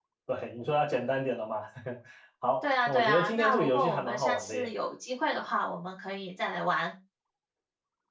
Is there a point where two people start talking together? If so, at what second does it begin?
3 s

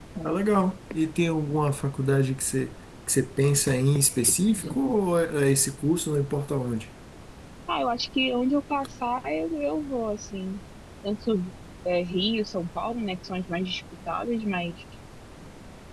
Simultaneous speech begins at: none

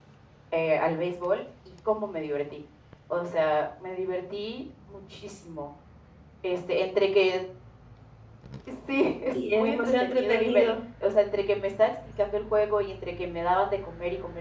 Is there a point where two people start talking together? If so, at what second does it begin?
9 s

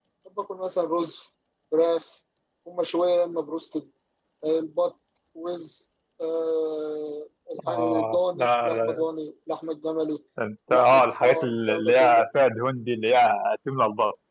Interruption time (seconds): 8 s

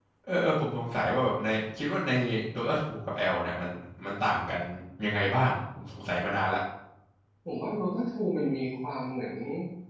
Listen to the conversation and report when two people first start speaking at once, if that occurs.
none

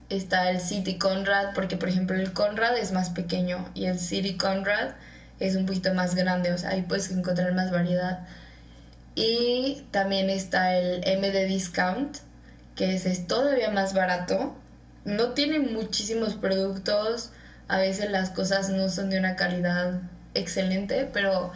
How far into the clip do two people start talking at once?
none

